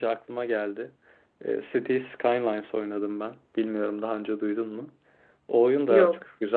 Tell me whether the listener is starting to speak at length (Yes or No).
No